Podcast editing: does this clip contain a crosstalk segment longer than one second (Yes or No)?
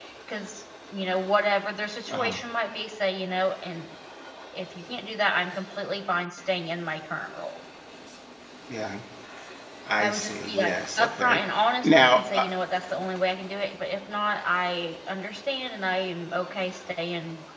Yes